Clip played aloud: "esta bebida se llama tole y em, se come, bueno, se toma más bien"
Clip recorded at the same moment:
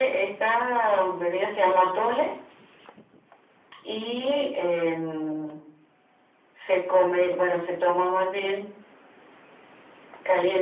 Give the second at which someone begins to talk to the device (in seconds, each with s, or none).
none